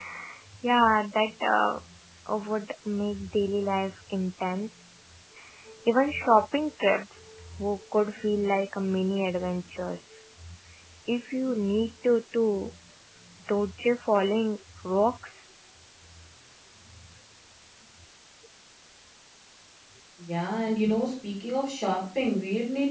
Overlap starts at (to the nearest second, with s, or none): none